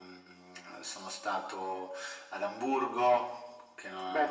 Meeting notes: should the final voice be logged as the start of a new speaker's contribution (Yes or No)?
Yes